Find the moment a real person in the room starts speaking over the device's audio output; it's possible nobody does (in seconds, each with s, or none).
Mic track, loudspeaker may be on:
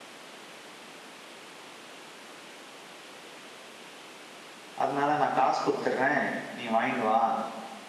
4.8 s